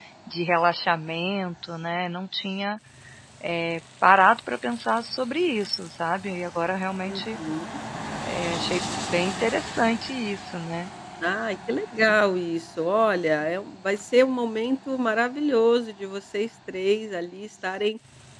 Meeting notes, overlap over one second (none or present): none